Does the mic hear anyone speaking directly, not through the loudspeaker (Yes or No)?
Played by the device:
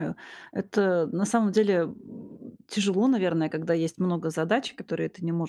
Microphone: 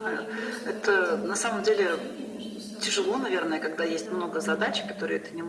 Yes